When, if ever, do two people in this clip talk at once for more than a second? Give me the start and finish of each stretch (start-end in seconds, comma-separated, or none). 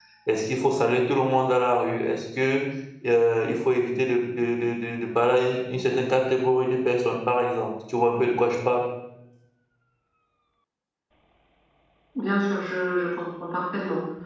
none